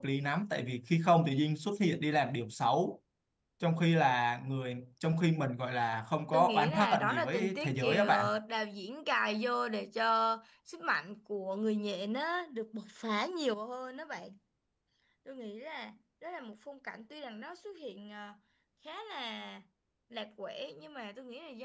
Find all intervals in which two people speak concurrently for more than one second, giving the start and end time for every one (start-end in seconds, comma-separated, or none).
6.3-8.0